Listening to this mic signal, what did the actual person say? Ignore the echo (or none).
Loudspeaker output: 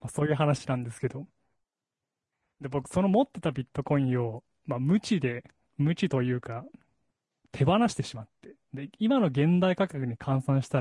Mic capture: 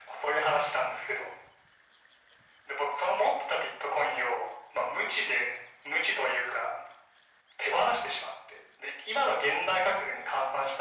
none